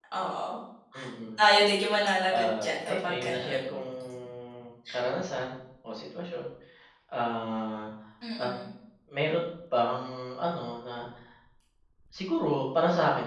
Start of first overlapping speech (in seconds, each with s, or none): 2.3 s